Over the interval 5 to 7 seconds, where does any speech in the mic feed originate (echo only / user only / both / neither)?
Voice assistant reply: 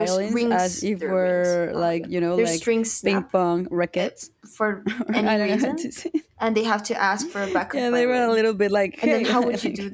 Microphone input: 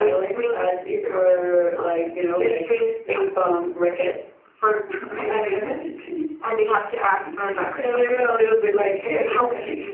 echo only